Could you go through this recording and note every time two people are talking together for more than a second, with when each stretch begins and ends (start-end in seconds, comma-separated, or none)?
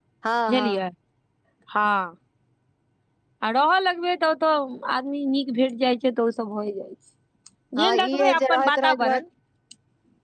7.8-9.2